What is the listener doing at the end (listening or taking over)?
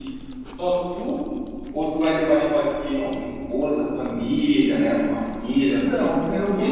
taking over